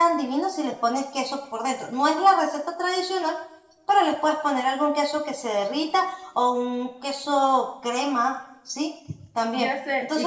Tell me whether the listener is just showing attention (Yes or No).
No